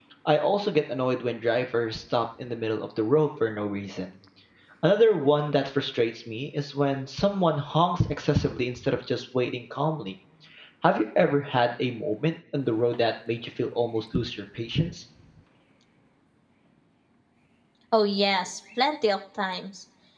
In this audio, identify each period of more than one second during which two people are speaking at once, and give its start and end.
none

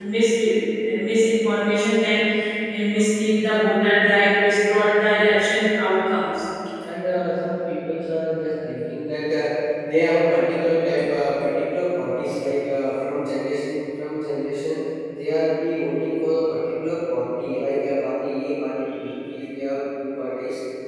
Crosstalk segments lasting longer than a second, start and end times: none

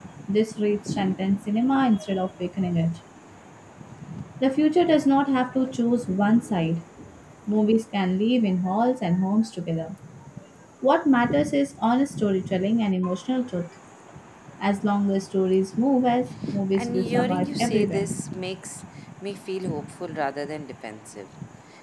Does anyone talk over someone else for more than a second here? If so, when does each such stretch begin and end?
16.7-18.1

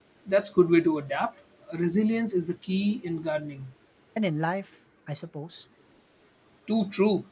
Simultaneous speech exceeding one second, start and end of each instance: none

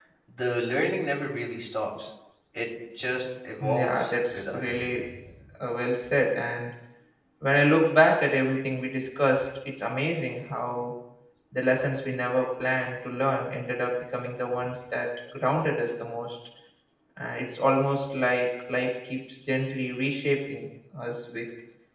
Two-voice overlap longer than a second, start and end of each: 3.6-4.8

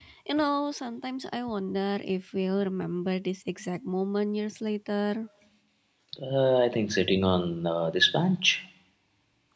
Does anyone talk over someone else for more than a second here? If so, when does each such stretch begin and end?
none

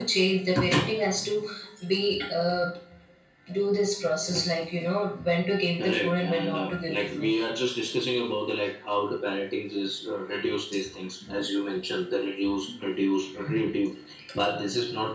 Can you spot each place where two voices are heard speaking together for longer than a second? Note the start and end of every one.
5.8-7.3

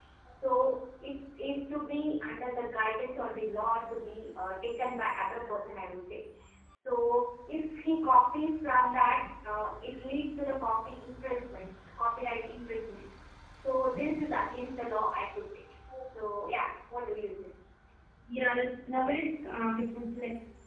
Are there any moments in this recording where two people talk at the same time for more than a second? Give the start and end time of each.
none

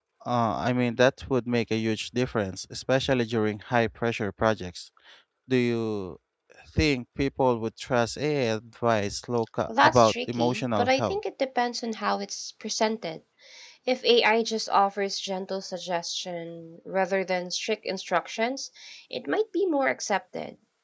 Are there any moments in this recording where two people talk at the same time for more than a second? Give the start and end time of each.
9.7-11.2

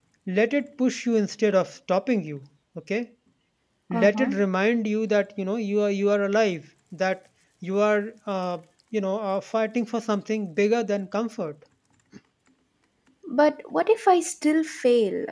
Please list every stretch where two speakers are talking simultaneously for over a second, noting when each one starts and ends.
none

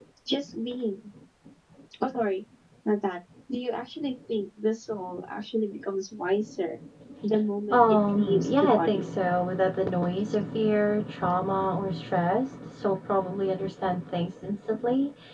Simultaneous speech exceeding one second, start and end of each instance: 7.7-9.1

